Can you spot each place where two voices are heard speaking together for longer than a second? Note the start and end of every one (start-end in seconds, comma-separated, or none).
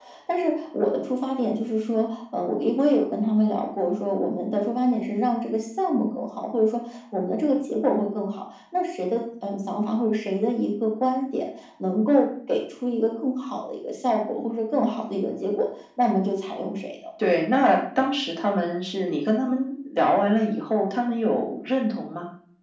none